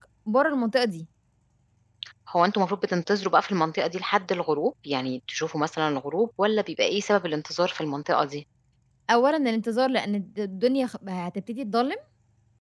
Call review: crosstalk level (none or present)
none